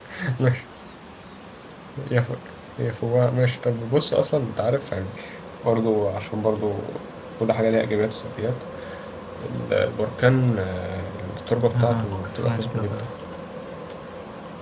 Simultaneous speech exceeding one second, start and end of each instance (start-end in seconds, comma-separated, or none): 11.8-13.1